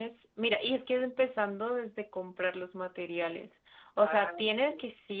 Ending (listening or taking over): listening